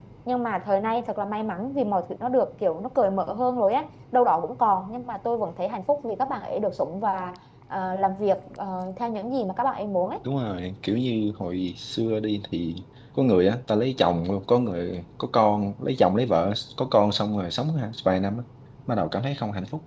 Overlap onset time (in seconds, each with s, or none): none